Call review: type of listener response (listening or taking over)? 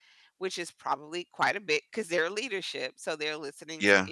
listening